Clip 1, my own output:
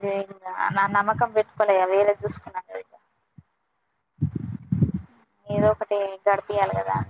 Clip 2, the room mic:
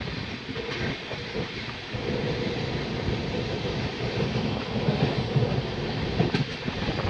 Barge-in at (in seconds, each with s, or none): none